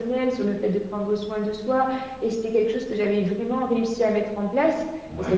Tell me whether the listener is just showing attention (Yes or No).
Yes